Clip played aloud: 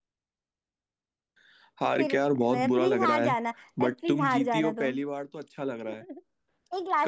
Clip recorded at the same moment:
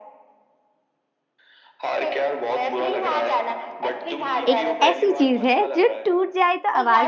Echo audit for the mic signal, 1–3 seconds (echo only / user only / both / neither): echo only